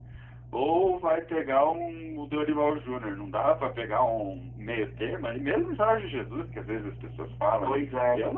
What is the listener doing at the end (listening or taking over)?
listening